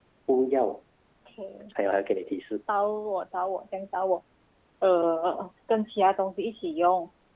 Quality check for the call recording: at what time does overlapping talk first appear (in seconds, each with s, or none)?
none